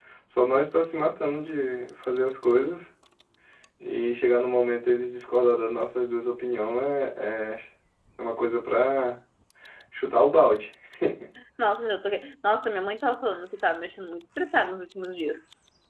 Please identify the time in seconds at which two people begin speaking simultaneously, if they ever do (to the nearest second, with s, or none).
none